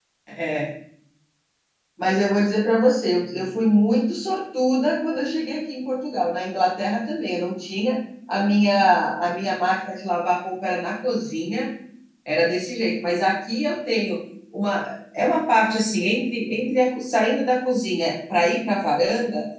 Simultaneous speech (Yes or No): No